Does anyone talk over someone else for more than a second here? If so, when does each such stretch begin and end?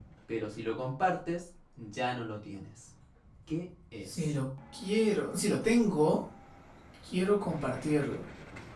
none

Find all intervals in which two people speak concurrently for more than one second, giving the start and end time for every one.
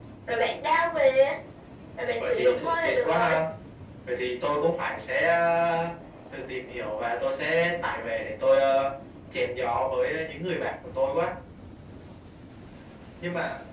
2.1-3.3

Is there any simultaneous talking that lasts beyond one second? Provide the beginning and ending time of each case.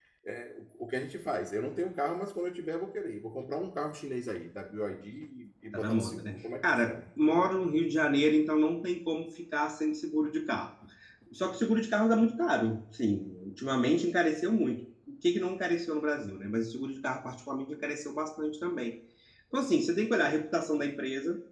5.7-7.0

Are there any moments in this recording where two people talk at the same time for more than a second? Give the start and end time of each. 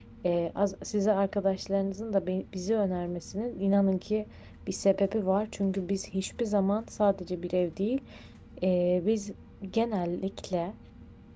none

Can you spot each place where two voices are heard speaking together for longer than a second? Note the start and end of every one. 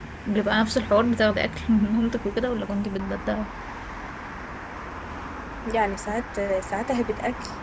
none

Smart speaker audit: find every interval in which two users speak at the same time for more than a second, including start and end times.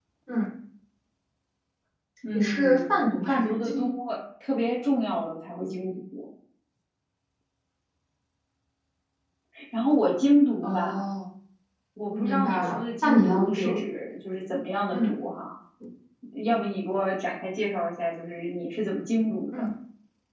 2.3-3.9, 12.1-13.8

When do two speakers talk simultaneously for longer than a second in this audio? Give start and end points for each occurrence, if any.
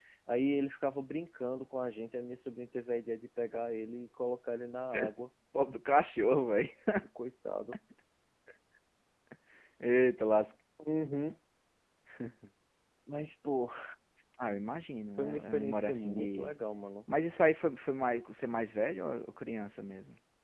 15.2-16.6

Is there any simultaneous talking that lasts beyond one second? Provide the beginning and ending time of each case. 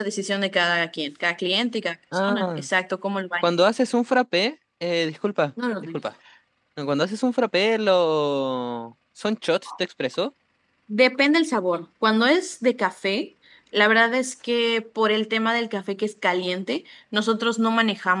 none

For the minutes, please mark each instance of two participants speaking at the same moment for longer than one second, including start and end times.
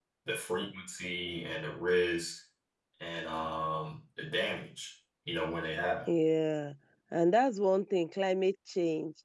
none

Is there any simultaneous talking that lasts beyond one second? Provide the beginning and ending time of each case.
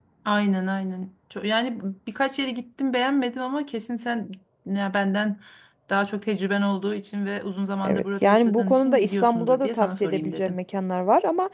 7.8-10.6

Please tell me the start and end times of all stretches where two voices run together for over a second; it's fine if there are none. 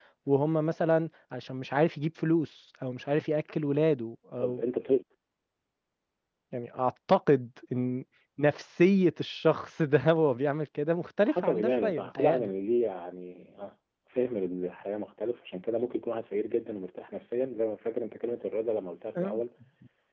11.2-12.5

